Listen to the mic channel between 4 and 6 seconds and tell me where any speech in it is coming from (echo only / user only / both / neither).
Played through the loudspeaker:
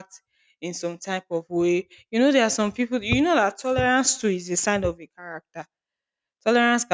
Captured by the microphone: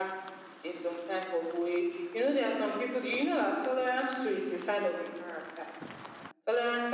echo only